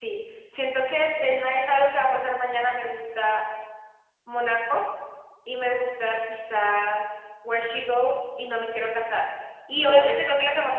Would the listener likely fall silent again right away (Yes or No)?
Yes